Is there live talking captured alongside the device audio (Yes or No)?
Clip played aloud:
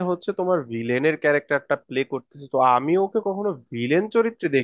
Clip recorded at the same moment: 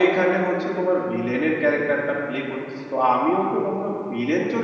No